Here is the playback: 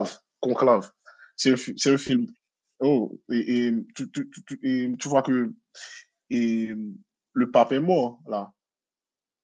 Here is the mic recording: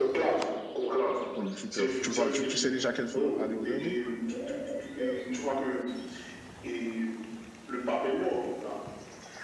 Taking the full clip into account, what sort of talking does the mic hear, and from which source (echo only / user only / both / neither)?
both